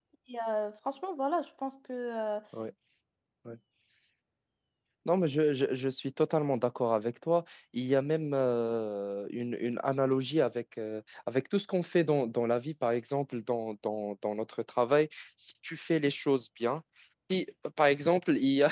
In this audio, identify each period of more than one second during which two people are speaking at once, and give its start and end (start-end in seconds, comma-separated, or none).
none